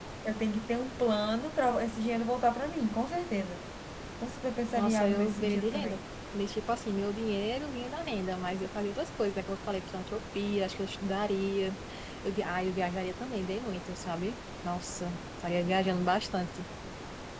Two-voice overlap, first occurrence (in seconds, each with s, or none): 4.7 s